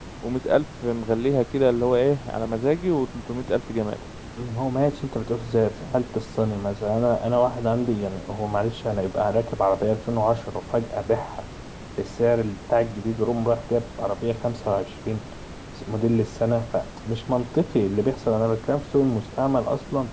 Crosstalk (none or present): none